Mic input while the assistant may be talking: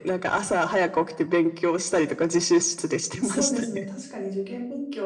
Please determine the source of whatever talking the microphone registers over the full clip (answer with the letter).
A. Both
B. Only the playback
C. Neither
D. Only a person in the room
A